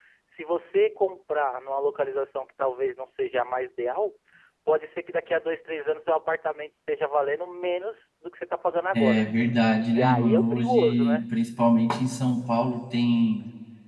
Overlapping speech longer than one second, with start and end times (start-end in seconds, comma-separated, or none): 9.9-11.2